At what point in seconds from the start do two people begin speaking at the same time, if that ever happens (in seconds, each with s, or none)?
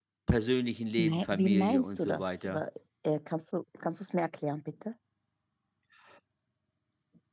1.0 s